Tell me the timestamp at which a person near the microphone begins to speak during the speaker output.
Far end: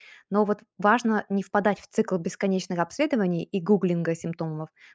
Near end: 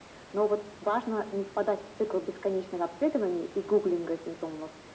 none

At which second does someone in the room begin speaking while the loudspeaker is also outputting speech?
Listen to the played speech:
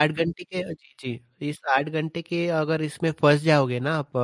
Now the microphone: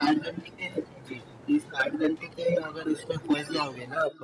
none

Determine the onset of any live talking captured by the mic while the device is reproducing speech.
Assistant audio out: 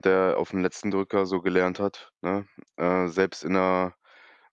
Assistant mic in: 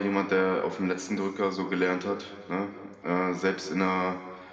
none

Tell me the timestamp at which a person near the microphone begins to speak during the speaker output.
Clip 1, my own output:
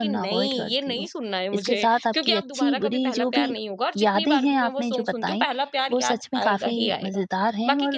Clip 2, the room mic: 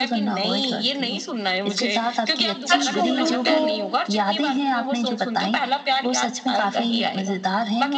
3 s

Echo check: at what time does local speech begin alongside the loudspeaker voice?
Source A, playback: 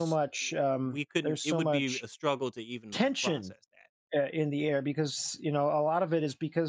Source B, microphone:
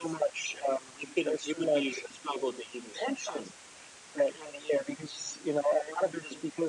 none

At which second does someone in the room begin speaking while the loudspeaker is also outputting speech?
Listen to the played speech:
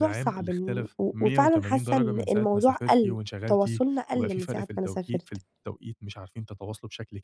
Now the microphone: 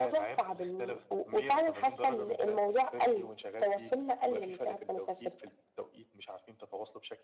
none

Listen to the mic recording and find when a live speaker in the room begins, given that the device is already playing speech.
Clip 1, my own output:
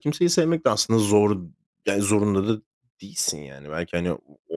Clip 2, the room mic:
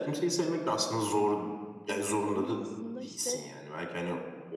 2 s

